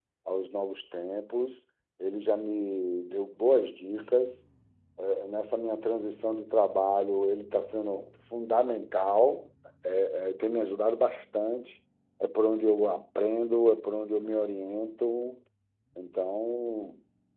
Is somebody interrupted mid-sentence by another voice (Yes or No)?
No